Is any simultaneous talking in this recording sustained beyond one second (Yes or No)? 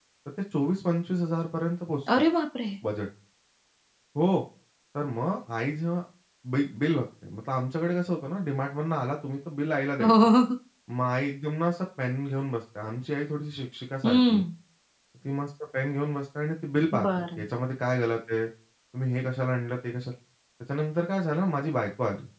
No